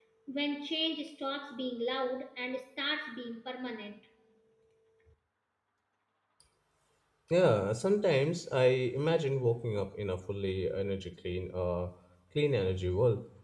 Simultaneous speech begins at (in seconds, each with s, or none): none